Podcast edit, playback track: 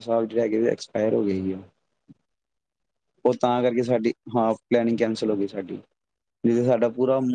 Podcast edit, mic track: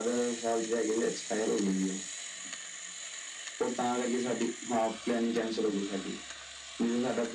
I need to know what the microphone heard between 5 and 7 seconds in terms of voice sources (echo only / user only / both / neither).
echo only